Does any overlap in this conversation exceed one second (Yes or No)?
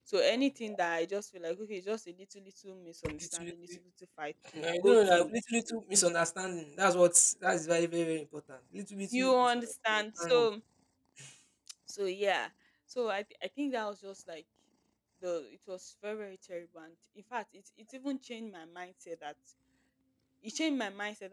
Yes